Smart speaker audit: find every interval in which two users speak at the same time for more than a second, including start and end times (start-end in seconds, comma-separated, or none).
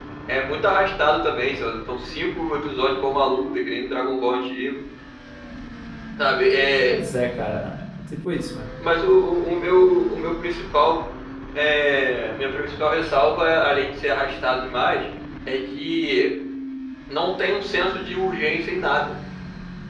none